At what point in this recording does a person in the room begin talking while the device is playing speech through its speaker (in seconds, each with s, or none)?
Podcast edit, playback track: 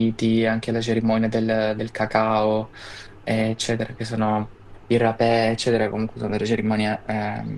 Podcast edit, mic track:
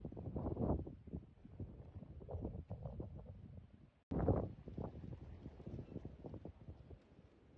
none